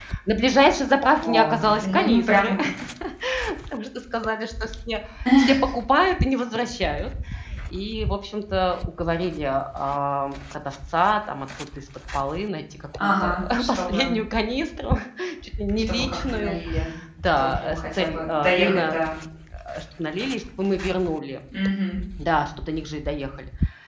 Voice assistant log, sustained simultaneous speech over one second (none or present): present